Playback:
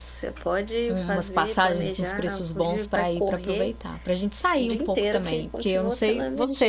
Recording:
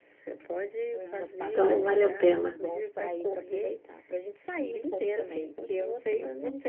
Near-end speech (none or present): present